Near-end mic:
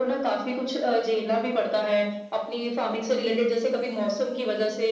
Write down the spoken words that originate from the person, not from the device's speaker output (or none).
none